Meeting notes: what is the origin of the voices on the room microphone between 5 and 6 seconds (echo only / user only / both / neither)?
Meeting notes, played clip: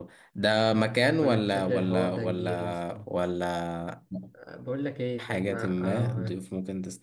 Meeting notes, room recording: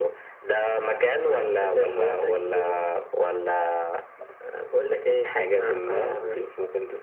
echo only